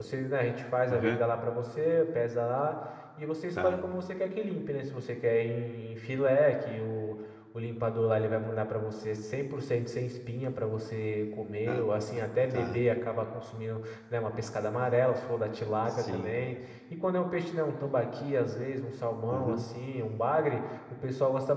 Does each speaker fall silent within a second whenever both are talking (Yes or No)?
Yes